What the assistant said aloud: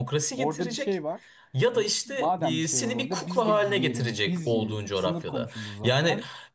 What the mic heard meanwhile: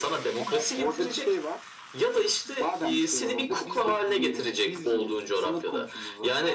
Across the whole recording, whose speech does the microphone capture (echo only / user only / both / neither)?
both